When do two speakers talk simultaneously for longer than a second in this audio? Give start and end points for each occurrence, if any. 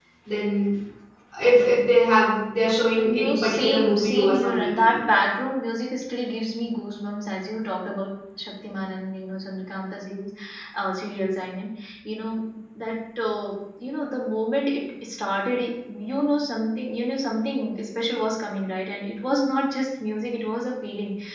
3.0-5.0

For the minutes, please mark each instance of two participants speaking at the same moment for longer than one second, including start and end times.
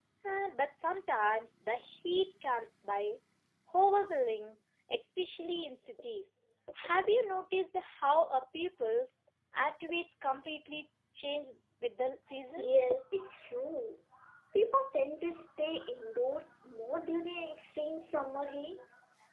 none

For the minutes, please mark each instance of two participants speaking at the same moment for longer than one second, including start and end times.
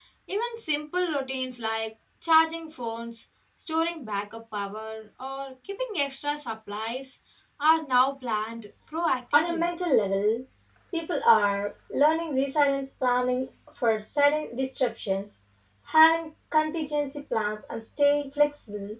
none

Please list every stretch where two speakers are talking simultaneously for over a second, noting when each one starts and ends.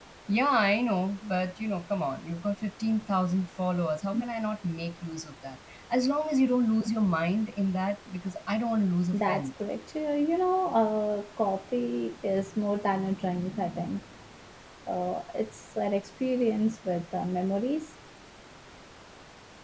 none

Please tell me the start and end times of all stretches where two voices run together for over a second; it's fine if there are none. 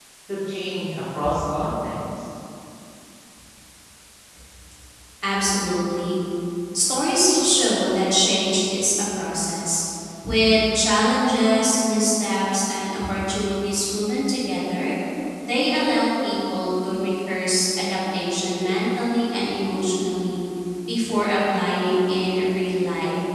none

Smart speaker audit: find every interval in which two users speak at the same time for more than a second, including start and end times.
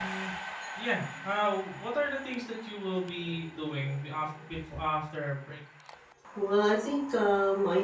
none

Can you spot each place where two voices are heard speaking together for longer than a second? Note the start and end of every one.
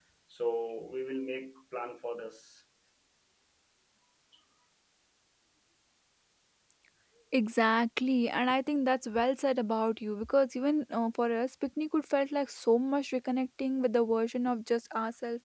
none

